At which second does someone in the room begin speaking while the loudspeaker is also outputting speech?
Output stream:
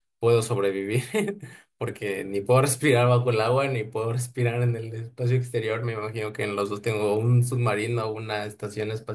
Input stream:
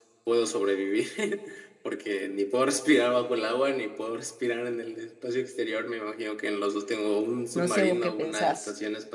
7.5 s

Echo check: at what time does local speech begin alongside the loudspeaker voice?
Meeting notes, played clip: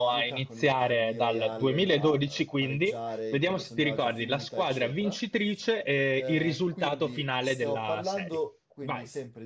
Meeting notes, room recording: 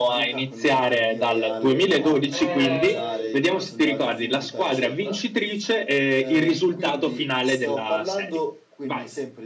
2.3 s

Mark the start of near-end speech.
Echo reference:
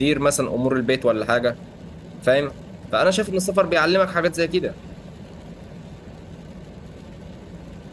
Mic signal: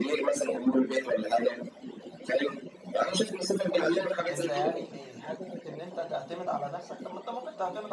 4.3 s

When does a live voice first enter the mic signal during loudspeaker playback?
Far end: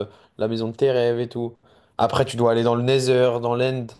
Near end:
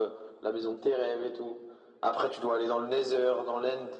none

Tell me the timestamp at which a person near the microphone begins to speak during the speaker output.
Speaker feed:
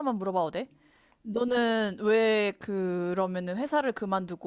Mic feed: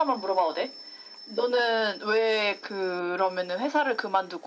none

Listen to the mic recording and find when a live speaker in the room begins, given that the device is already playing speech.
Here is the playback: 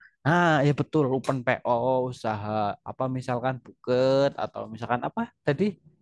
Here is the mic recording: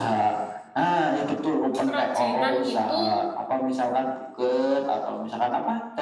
1.8 s

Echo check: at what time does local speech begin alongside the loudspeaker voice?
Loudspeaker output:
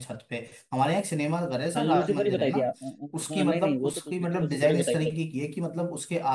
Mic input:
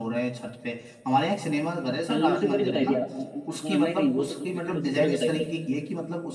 none

